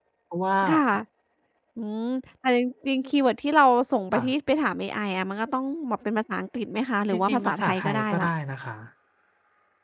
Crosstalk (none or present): present